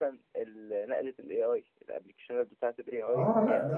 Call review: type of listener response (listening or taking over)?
taking over